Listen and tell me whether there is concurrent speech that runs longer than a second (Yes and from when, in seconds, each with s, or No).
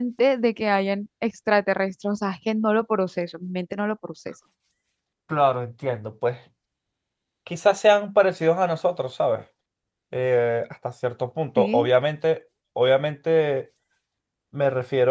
No